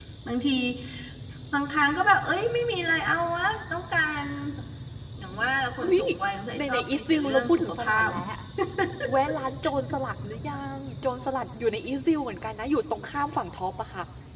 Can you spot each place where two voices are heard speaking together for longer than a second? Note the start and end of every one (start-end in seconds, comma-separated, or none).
6.6-8.1